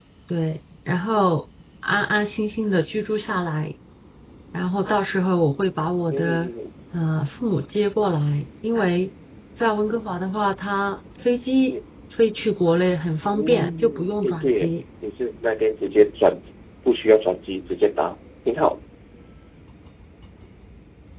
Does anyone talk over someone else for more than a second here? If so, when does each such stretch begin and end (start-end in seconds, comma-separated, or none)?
13.4-14.7